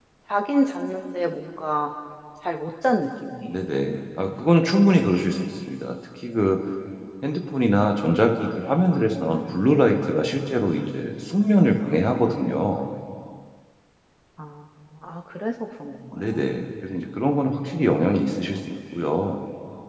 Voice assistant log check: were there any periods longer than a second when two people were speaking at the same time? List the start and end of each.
none

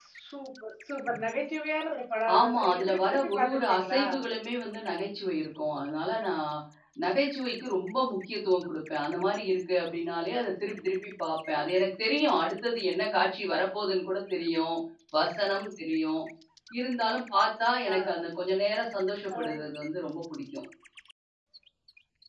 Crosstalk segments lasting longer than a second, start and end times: 2.4-4.0

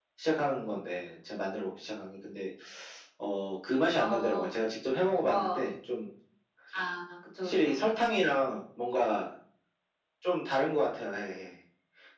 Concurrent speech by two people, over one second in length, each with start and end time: none

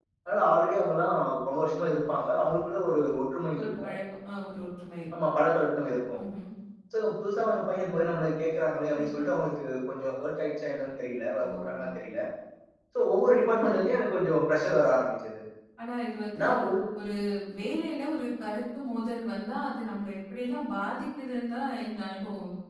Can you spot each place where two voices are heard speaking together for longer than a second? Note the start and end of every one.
none

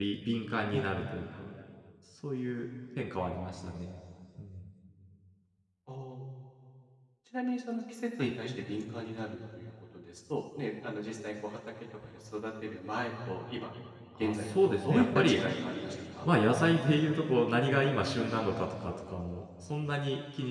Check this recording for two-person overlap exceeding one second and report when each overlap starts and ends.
14.2-15.4

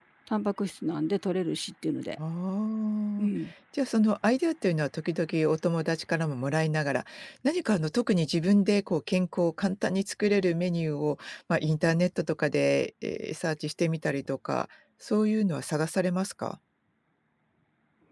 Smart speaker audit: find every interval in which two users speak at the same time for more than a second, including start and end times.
none

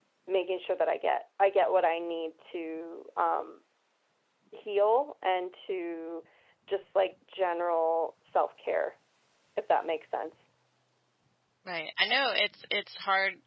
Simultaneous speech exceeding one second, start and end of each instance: none

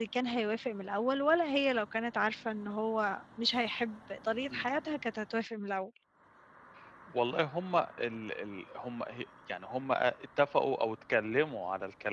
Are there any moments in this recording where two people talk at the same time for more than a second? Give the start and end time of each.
none

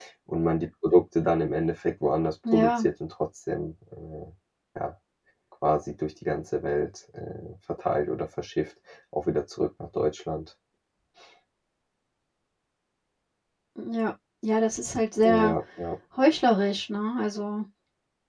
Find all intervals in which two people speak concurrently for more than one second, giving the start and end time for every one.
none

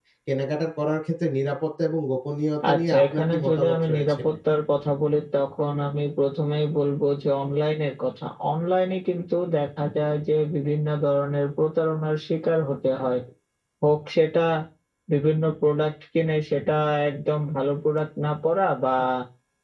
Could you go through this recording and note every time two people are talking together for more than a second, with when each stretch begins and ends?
2.7-4.2

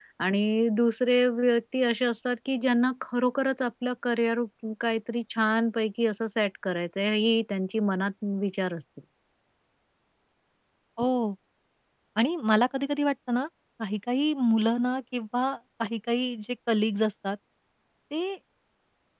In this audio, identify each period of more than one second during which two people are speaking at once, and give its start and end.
none

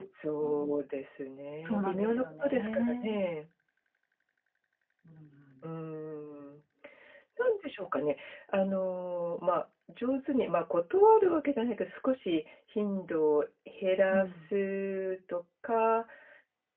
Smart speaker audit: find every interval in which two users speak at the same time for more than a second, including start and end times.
1.6-3.2

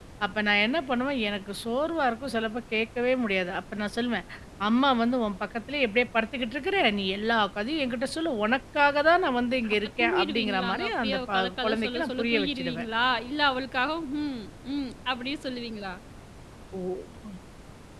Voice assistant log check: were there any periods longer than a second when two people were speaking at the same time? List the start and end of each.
9.7-12.8

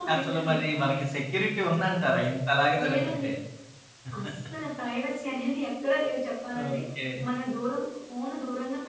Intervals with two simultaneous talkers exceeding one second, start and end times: none

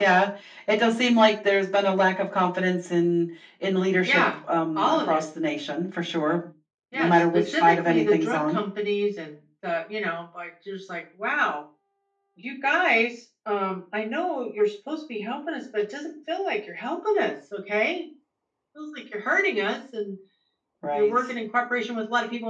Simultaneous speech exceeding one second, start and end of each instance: 6.9-8.6

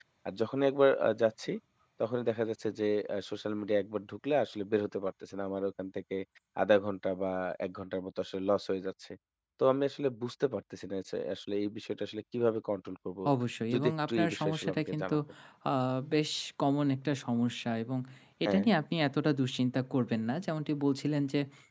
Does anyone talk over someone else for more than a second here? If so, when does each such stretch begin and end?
13.7-15.2

